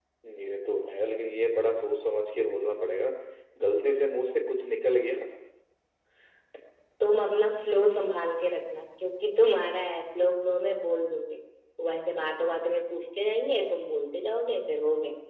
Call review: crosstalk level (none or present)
none